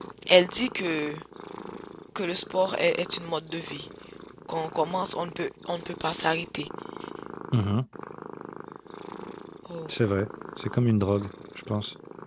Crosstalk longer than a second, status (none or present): none